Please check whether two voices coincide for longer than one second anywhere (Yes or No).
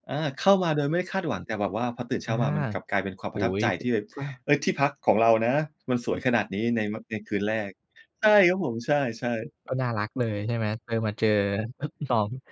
No